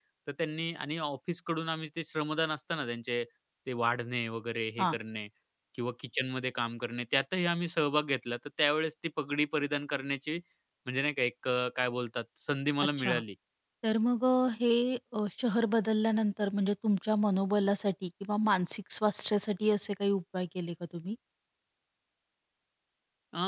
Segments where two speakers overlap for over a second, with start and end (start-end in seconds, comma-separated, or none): none